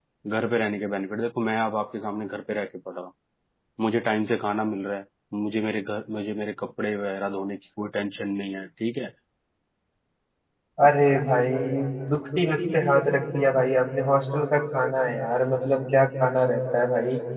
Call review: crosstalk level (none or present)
none